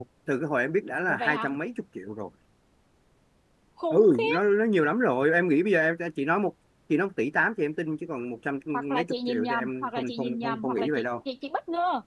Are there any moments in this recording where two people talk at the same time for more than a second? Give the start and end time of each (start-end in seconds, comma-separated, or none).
8.9-11.0